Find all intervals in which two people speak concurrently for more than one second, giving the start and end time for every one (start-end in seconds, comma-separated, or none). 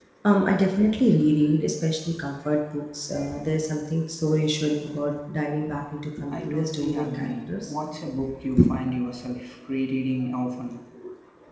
6.3-7.7